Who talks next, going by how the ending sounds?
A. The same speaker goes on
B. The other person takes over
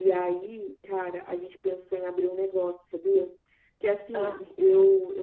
A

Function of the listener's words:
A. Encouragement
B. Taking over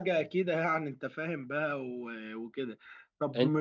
A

